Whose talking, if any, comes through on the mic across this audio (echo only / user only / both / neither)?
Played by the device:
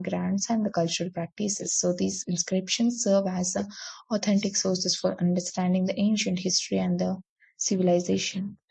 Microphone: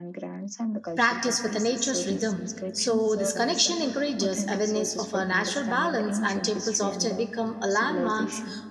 both